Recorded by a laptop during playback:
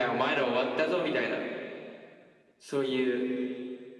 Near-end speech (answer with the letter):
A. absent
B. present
A